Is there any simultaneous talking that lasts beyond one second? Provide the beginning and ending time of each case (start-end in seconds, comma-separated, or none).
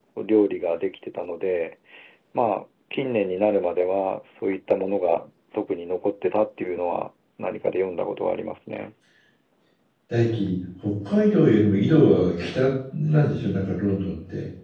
none